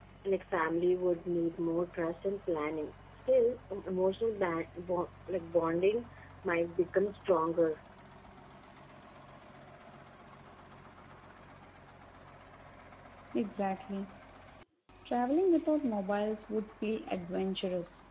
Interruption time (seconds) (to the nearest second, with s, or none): none